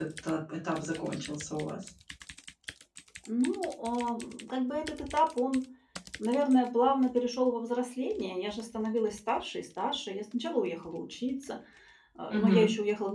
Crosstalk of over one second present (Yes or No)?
No